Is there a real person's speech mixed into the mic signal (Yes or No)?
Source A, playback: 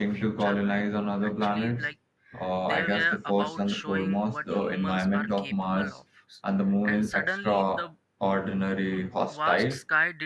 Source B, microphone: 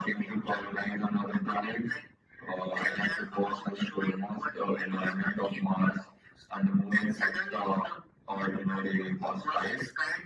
No